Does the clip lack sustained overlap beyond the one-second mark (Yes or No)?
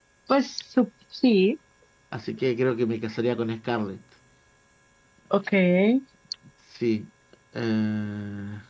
Yes